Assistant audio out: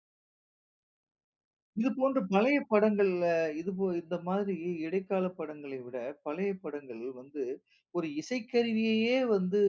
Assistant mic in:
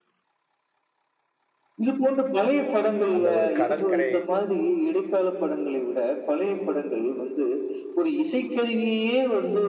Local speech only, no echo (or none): அந்த ஒரு கடற்கரை